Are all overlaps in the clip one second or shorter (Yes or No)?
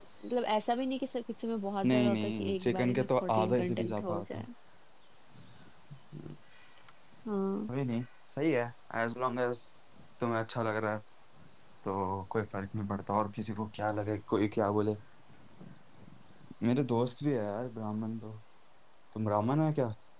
No